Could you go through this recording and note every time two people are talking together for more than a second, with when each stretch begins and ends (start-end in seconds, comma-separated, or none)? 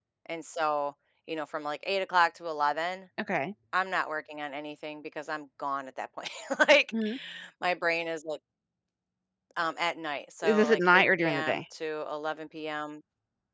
10.4-11.6